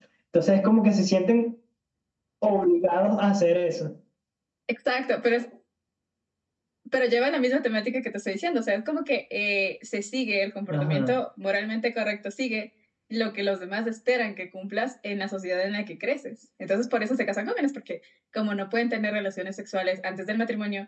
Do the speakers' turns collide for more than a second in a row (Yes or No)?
No